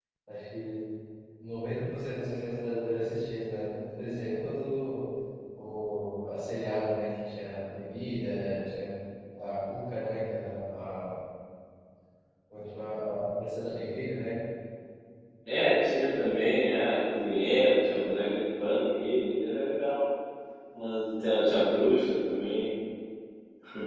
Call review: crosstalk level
none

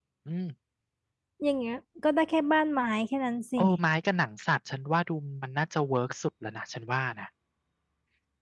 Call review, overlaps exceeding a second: none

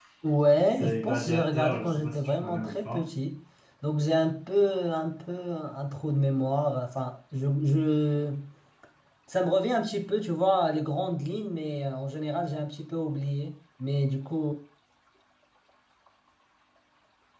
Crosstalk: present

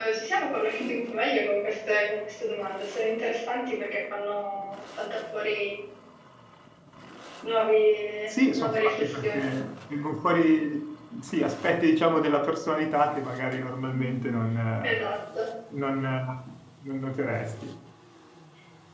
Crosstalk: present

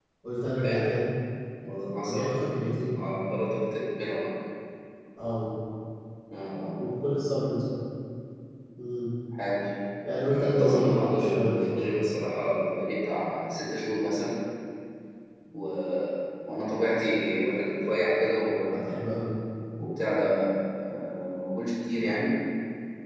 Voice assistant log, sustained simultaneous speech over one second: present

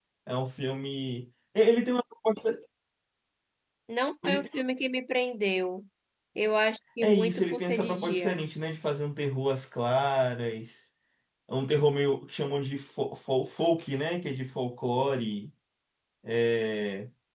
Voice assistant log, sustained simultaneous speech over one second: present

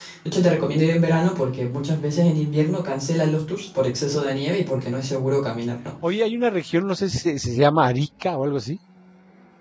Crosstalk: none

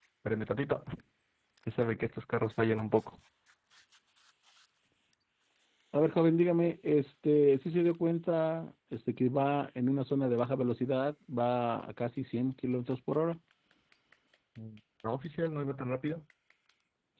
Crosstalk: none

